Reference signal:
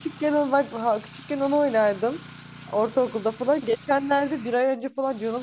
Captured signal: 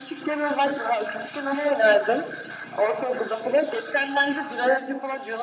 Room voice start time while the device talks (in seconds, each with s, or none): none